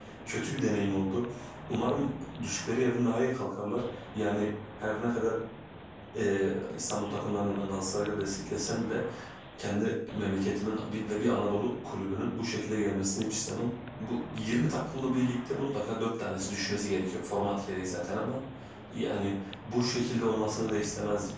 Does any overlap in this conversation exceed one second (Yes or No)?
No